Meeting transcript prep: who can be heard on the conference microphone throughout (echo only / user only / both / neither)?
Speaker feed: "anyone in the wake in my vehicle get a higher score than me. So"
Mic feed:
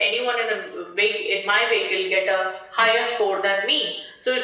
echo only